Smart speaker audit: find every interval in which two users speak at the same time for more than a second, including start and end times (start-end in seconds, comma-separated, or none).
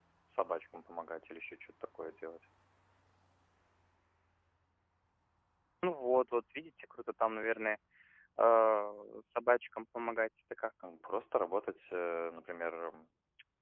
none